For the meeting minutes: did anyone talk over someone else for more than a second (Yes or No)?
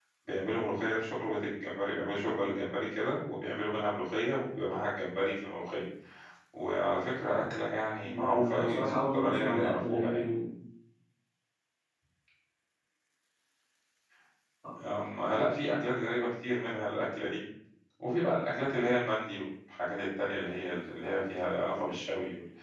Yes